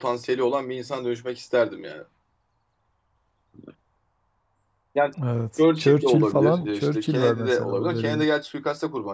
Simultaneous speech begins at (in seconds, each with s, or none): 5.6 s